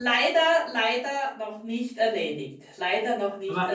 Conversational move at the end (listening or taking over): taking over